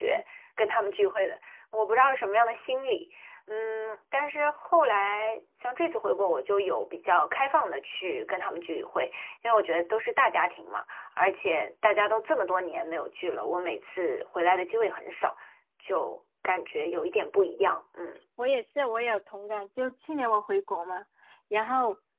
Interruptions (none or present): none